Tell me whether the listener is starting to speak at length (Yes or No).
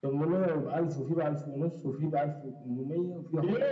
Yes